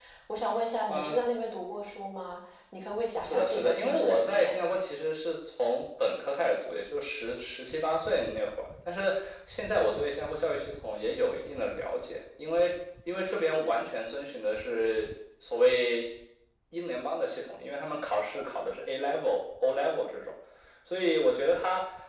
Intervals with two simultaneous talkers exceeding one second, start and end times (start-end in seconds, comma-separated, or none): 3.2-4.5